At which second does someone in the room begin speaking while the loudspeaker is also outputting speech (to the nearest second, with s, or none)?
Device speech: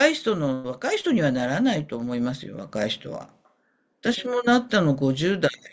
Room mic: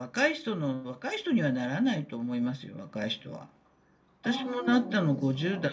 4 s